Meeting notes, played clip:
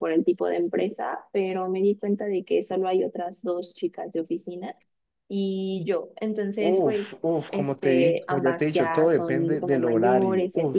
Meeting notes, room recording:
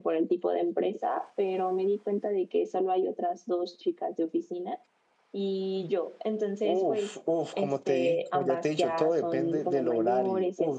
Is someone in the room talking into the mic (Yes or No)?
No